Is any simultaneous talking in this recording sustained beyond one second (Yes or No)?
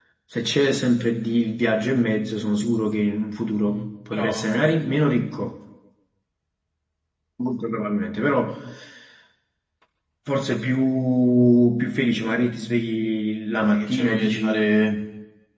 Yes